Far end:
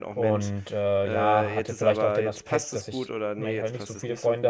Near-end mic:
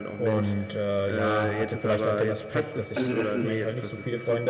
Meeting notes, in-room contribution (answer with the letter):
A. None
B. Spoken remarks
B